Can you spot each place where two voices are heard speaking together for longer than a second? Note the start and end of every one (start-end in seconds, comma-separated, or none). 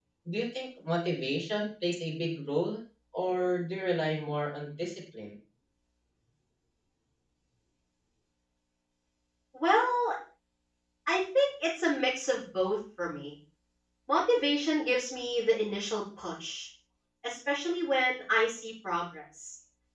none